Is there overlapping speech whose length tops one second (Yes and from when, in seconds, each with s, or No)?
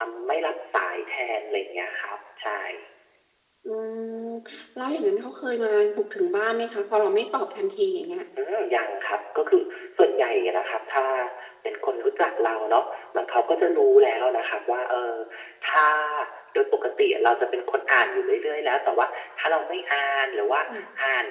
No